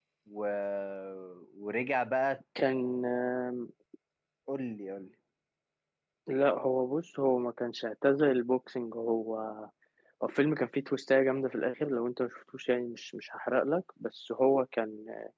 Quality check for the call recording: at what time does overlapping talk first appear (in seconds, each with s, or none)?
none